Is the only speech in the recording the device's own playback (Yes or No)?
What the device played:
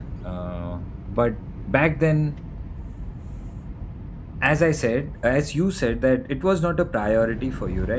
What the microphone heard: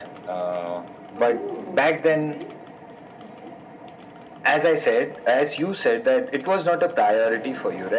No